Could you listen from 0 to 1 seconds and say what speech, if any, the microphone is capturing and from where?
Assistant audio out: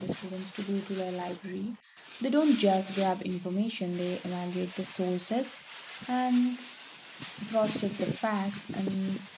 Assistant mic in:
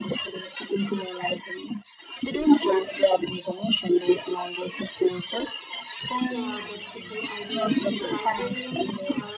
echo only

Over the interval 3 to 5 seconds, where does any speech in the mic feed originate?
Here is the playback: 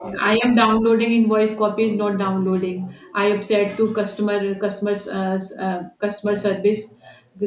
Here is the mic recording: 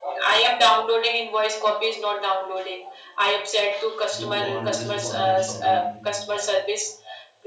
both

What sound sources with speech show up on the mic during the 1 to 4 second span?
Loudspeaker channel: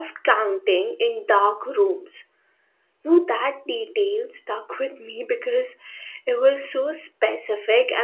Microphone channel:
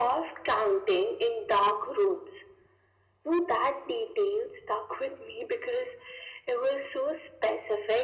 echo only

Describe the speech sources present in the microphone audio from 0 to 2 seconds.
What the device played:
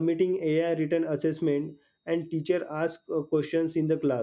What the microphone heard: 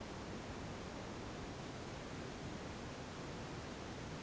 neither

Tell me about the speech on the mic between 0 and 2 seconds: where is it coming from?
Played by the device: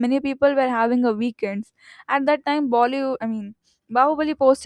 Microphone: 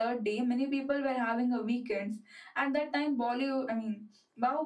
echo only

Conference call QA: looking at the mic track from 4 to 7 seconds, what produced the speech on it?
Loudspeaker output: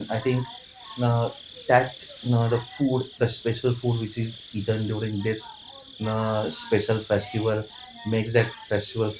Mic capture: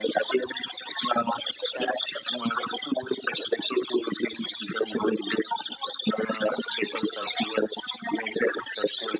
echo only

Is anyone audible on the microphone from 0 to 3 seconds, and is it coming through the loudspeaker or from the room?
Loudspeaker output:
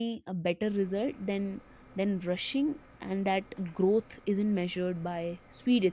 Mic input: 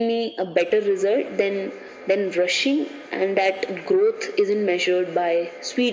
echo only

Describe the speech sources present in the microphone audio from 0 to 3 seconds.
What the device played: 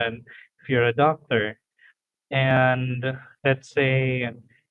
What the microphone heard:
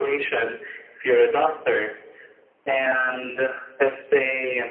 echo only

